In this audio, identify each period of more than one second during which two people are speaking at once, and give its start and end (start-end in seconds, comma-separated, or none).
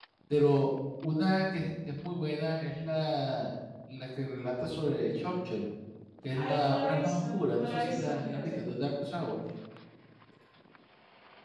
6.4-8.6